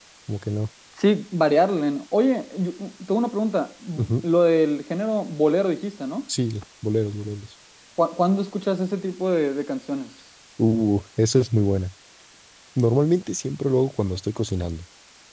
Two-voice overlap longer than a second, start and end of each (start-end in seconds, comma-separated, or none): none